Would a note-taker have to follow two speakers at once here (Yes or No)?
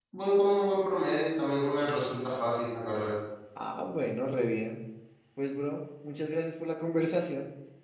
No